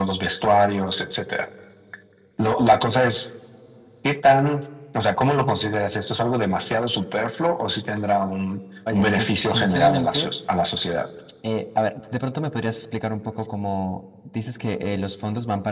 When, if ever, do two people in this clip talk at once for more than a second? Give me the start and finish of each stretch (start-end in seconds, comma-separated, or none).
8.9-10.3